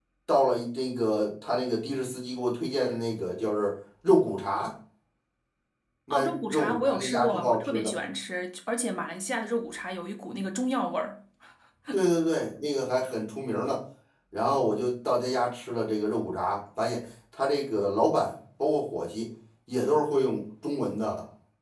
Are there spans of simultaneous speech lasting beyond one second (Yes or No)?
Yes